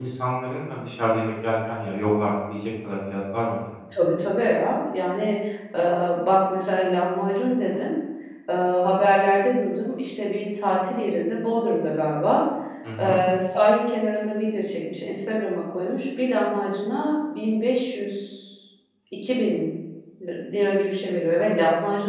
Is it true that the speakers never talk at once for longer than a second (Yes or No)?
Yes